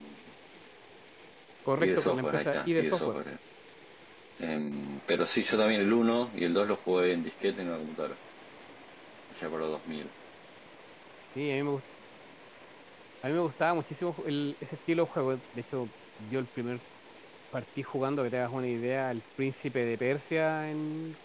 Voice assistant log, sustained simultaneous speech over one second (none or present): present